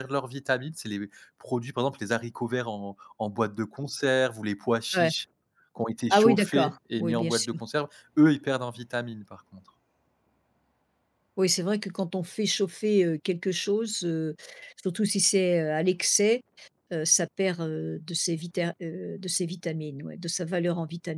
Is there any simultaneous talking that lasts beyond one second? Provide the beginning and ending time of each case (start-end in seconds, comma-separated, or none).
6.1-7.5